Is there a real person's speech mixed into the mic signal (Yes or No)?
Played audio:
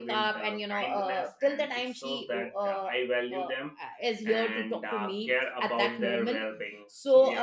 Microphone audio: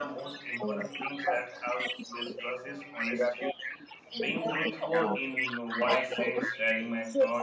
Yes